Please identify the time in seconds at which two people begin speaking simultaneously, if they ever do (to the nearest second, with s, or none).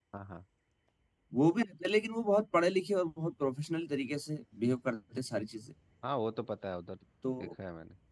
none